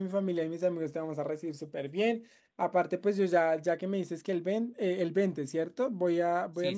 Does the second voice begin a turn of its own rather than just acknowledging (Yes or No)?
No